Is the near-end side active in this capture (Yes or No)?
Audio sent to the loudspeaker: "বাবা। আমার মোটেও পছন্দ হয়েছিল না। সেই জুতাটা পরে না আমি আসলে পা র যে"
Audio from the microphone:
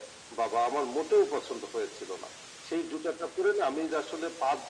No